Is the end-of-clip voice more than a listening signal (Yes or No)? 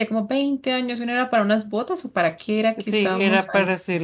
Yes